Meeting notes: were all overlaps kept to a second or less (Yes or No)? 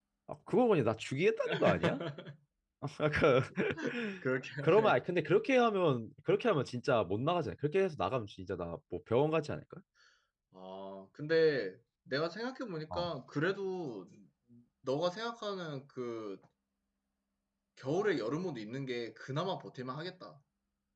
Yes